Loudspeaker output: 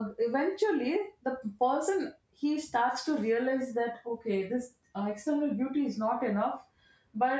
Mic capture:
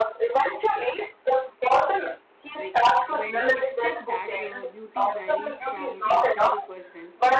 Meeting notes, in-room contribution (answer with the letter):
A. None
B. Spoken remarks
B